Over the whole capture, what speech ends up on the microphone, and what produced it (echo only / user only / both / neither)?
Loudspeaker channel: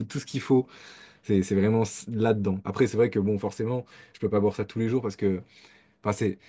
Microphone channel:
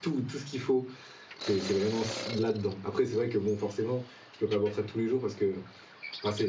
echo only